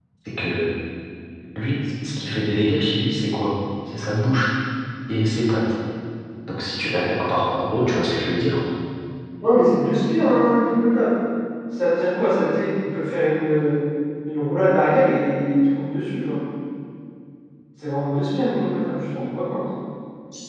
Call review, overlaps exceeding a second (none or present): none